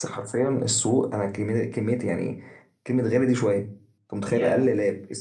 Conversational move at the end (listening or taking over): listening